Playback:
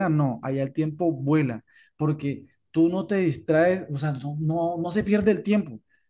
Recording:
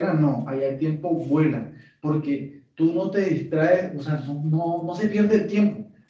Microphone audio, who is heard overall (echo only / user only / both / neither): echo only